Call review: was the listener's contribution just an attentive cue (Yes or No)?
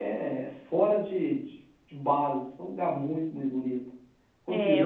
No